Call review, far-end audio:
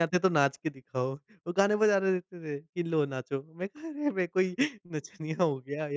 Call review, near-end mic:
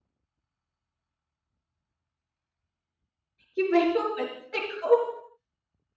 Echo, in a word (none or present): none